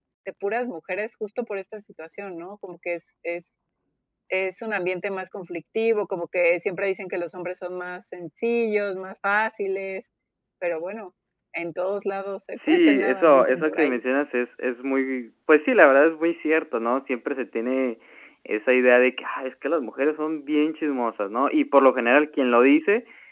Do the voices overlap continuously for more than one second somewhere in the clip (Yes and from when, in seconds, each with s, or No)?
Yes, from 12.6 s